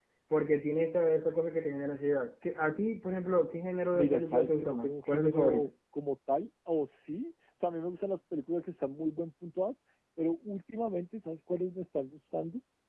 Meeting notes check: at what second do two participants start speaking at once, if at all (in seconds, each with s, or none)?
3.9 s